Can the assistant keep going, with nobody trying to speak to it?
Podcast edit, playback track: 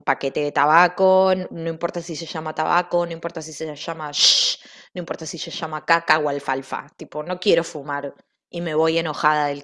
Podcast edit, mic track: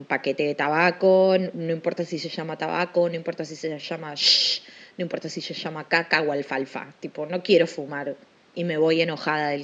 Yes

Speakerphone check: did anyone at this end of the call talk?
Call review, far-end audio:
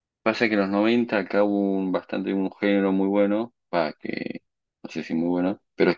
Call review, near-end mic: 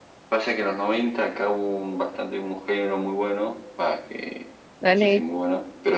Yes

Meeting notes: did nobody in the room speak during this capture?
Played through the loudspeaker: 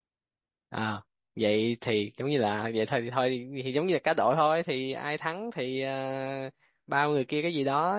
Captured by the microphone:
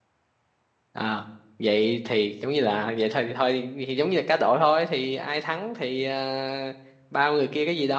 Yes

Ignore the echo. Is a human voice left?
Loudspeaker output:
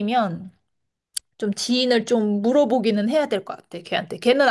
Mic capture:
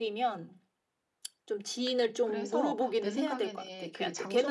Yes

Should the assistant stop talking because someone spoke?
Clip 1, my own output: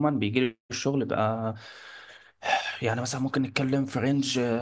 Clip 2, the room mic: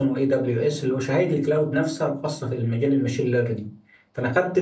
Yes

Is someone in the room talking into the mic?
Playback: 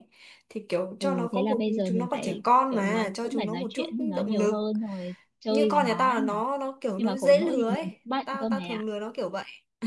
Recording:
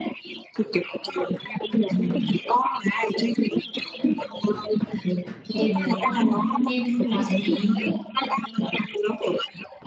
Yes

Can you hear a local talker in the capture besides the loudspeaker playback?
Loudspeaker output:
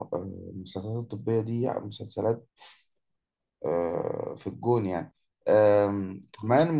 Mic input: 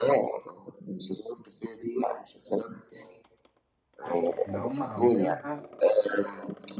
Yes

